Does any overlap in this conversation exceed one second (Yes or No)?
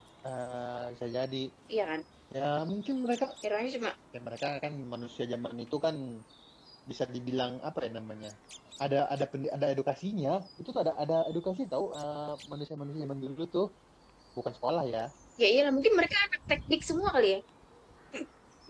No